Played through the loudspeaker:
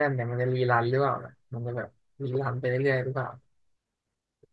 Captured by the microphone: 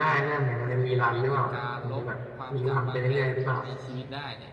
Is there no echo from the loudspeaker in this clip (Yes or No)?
No